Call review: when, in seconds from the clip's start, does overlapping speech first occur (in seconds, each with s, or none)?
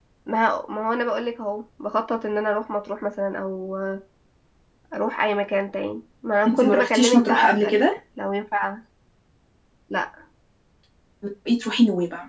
6.5 s